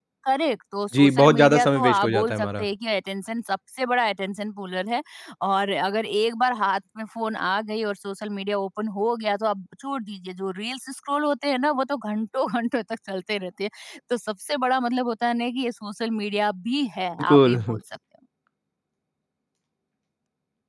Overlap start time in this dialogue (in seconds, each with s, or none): 0.9 s